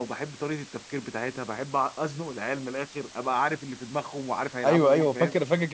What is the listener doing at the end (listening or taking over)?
taking over